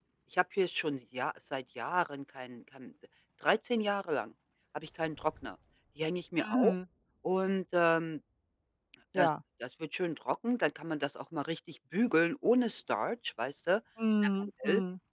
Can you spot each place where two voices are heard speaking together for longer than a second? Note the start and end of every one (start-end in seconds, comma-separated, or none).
none